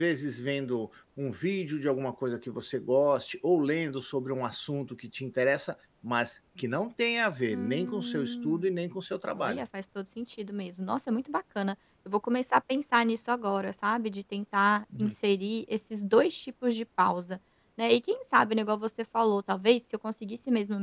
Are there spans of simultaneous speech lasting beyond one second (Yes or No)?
Yes